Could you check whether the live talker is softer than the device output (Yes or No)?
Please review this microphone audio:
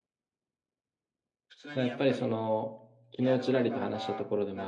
No